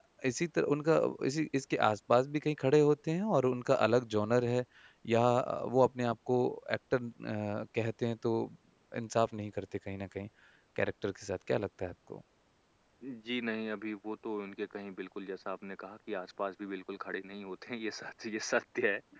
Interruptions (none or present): none